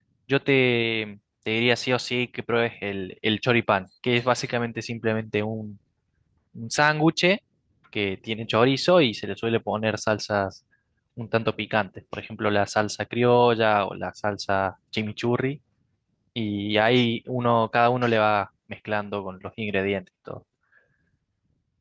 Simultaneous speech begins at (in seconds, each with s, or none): none